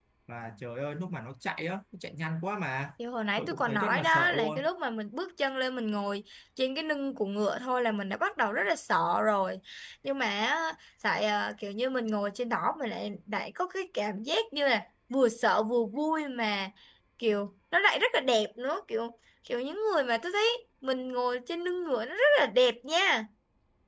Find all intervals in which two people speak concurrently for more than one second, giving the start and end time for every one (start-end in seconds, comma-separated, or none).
3.4-4.7